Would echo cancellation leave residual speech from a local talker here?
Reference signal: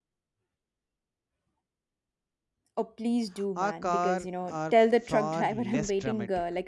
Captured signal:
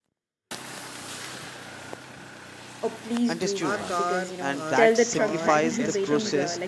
Yes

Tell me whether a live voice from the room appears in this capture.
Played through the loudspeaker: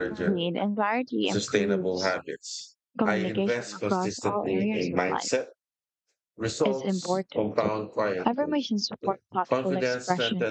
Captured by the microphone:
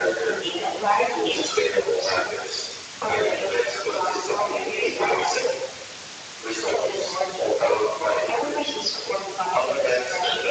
No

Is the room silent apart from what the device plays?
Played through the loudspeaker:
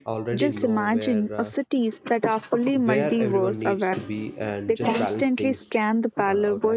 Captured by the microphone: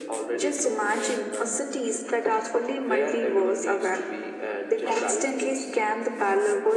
Yes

